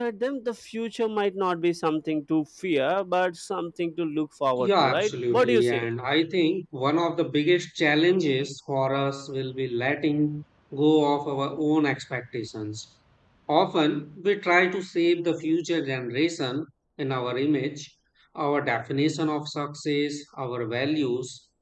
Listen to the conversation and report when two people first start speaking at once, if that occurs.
4.6 s

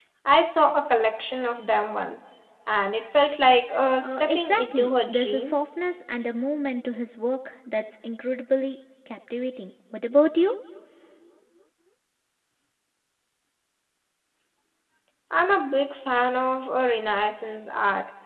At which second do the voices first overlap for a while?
4.0 s

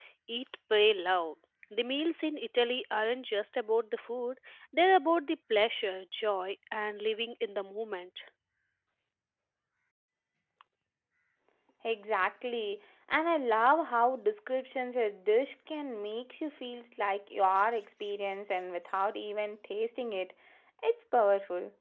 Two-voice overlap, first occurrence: none

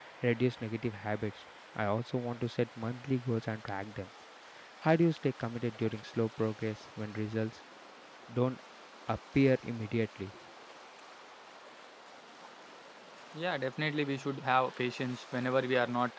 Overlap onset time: none

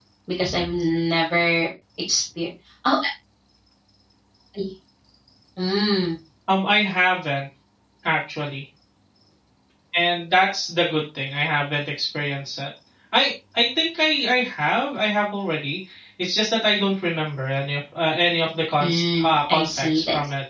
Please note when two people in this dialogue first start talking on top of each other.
18.8 s

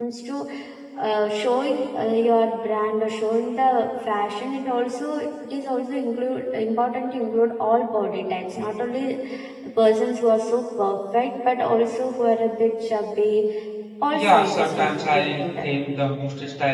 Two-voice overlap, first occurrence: 14.1 s

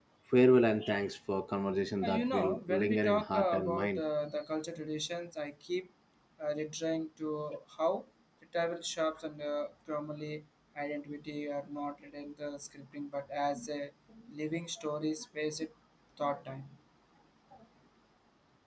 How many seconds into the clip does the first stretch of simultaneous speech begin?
2.0 s

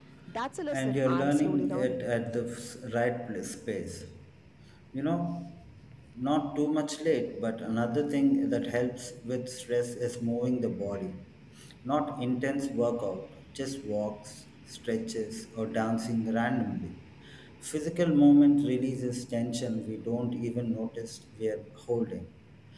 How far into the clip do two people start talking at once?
0.7 s

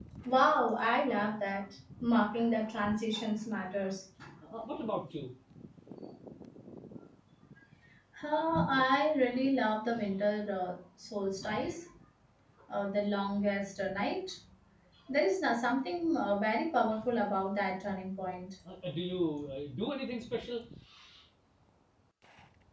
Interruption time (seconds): none

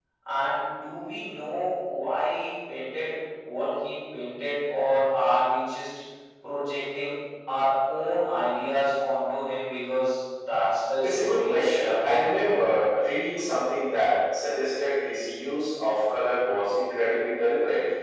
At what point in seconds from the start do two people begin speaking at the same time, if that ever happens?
11.0 s

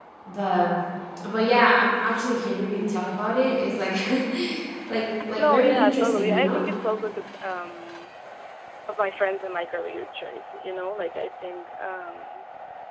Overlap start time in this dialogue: 5.4 s

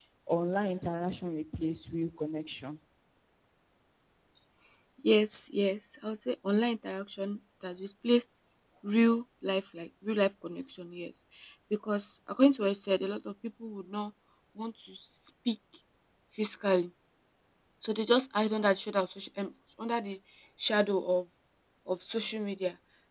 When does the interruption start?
none

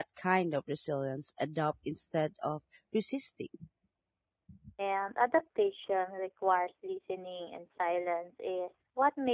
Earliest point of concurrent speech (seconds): none

